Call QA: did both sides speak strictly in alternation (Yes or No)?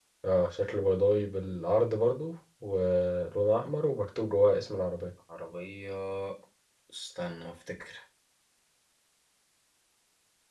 Yes